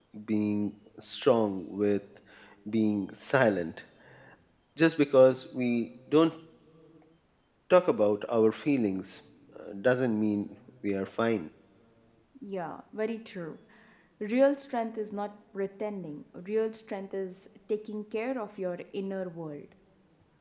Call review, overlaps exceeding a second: none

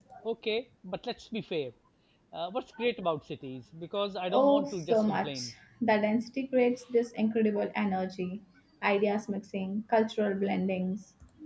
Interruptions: present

